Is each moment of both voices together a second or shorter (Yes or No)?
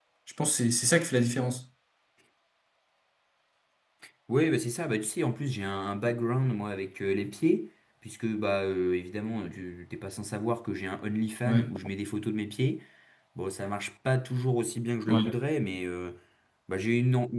Yes